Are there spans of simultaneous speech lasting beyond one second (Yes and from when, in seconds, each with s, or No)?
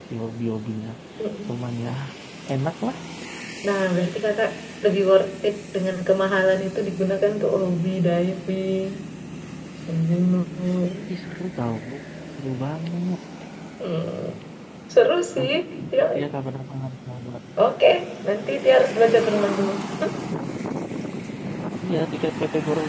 No